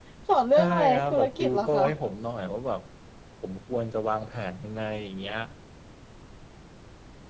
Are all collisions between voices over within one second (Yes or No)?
No